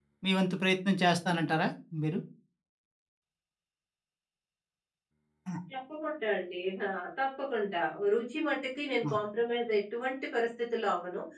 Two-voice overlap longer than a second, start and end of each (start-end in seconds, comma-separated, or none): none